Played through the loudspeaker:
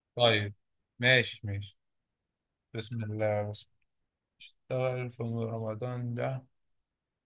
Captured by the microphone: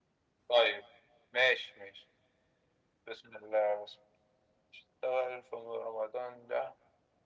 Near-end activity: none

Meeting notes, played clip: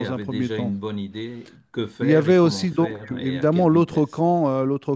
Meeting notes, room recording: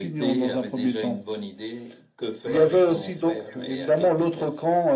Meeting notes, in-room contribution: none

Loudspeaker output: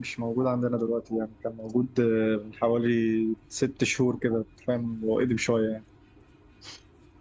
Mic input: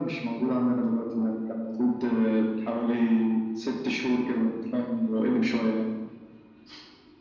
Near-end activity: none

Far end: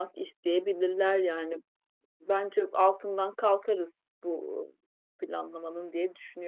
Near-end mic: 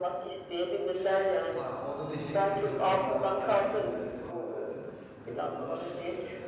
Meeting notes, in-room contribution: present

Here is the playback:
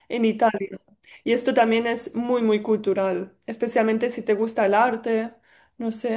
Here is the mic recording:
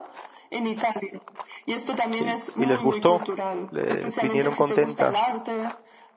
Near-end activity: present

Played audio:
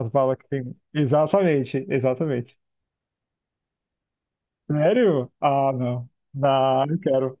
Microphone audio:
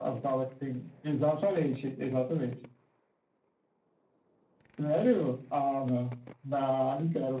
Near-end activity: none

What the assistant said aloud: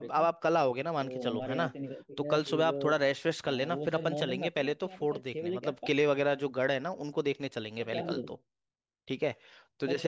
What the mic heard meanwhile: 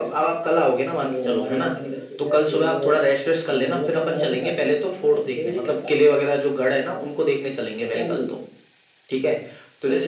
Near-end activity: none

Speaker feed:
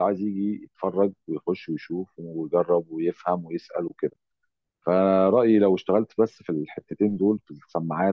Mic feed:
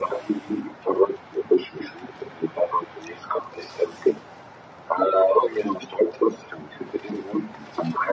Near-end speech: none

